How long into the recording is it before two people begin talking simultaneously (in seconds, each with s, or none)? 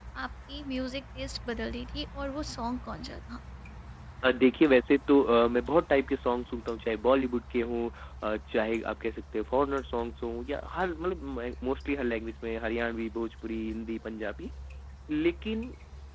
none